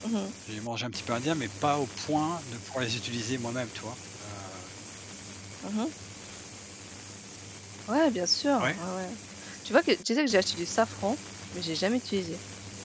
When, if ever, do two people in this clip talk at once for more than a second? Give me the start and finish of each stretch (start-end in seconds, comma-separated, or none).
none